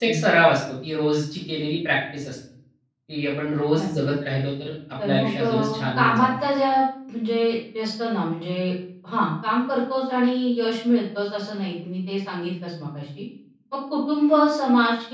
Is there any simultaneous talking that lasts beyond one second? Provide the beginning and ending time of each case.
5.0-6.3

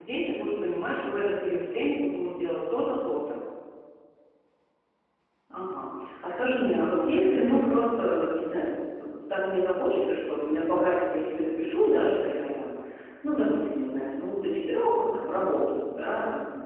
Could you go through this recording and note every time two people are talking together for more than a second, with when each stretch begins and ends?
none

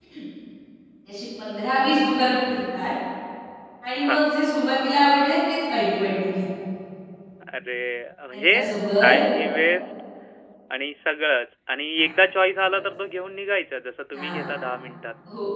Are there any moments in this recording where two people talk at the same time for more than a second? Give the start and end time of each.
none

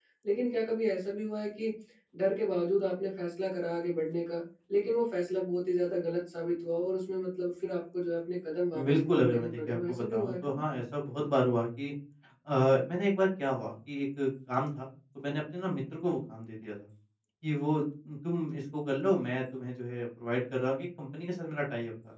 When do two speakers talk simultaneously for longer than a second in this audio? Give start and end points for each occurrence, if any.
8.8-10.6

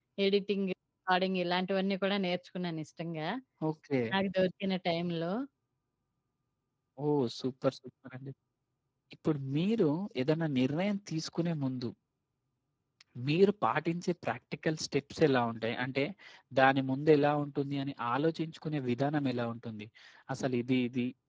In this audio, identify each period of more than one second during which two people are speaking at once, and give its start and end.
none

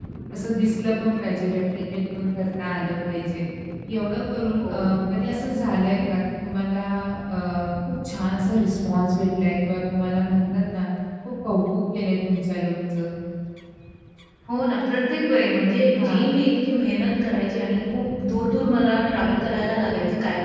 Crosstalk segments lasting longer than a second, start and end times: none

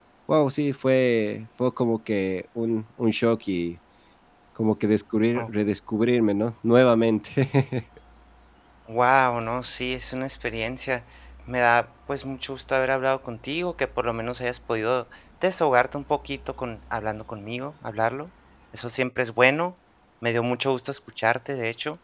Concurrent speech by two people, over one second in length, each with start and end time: none

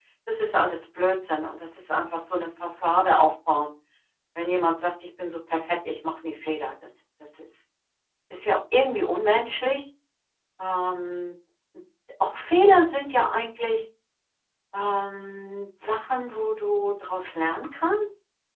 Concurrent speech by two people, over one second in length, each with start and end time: none

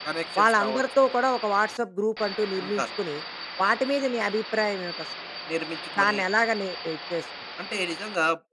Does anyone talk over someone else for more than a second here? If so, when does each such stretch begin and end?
none

